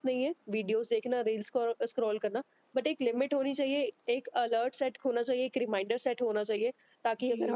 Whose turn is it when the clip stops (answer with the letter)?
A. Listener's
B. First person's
A